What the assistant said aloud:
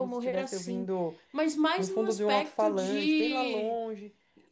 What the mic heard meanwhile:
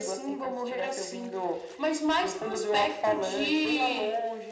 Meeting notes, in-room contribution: none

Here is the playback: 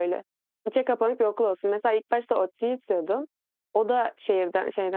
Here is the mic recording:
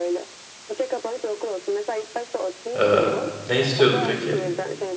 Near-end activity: present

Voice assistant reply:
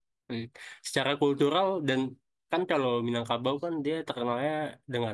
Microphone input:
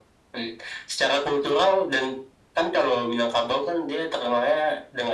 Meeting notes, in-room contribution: none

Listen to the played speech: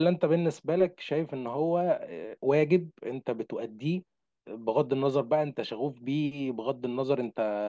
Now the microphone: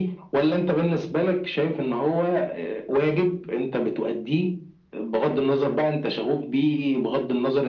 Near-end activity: none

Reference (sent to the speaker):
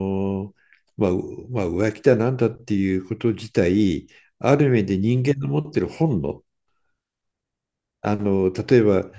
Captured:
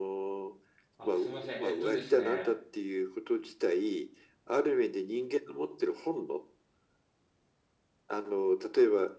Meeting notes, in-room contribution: present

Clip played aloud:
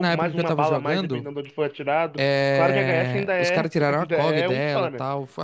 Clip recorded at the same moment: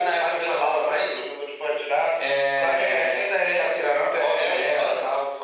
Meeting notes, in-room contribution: none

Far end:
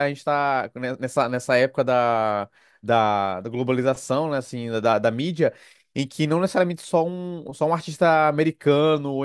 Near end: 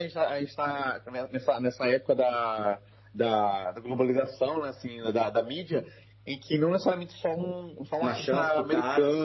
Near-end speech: present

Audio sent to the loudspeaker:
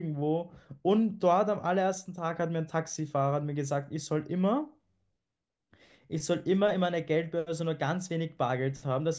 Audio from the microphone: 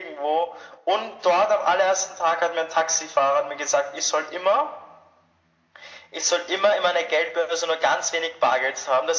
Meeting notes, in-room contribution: none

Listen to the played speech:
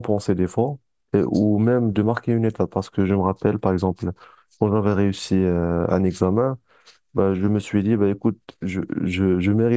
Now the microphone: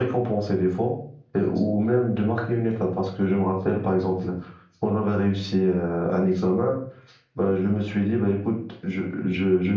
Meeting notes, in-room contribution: none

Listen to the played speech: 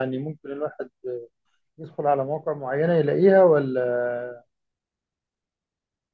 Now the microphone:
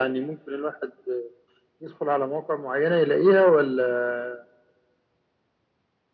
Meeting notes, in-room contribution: none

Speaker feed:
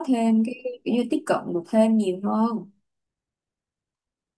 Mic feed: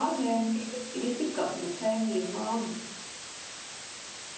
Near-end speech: none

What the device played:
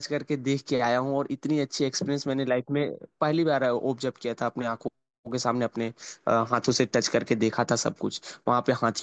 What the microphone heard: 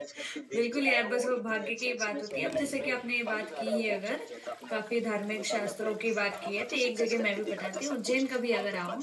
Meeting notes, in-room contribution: present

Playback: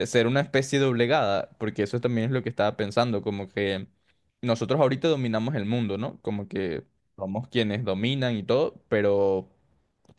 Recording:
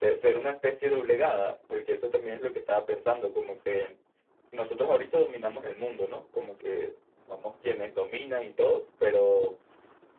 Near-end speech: none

